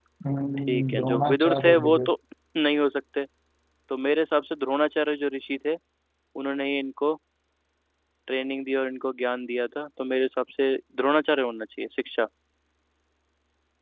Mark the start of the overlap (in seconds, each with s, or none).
0.7 s